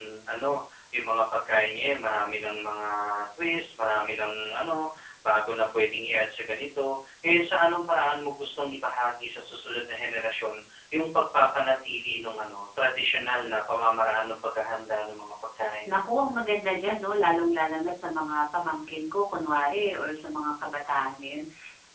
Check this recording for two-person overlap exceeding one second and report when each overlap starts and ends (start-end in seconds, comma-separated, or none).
none